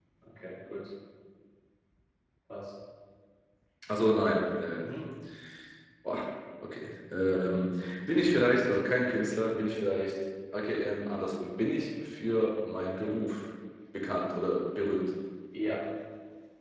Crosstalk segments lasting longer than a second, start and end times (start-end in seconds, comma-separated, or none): none